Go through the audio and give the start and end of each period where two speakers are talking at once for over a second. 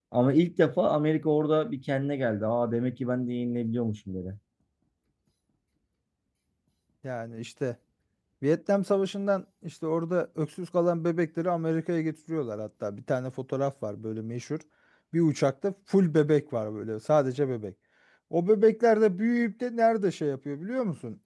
none

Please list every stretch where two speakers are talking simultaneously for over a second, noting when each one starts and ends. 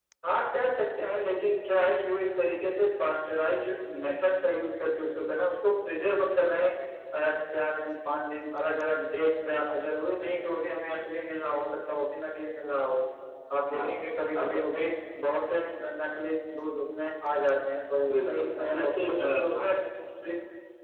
18.1-19.7

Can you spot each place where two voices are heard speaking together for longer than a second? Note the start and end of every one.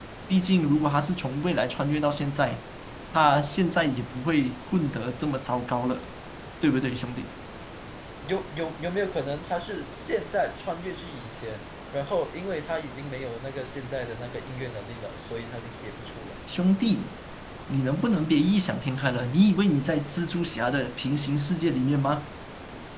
none

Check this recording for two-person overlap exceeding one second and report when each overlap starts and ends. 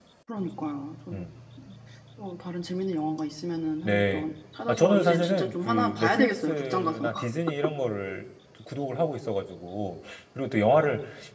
4.7-7.1

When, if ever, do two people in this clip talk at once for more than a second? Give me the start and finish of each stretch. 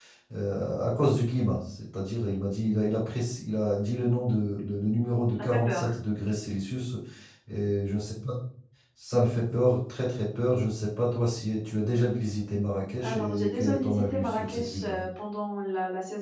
13.0-15.0

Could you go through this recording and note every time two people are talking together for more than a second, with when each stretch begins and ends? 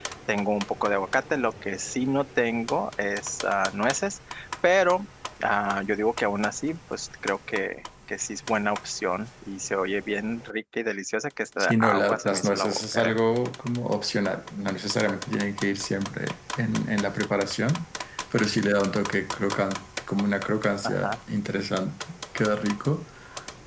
11.6-13.2

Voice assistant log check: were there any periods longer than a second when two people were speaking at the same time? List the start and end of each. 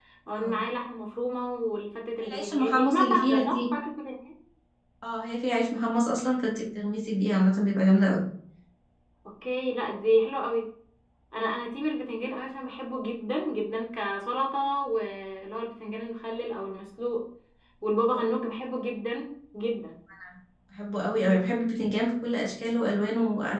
2.2-3.6

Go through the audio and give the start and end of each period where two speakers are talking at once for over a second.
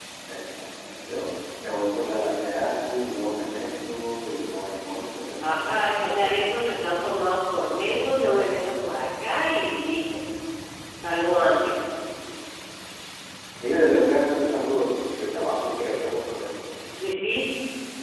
5.4-6.7

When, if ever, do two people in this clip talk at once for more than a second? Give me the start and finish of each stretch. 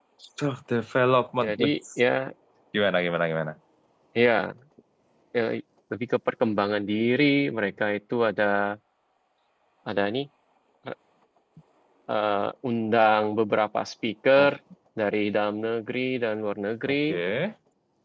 none

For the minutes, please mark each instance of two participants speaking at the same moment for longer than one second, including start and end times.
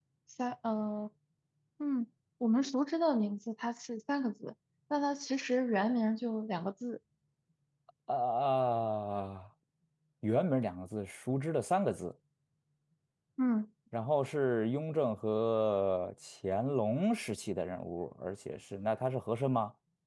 none

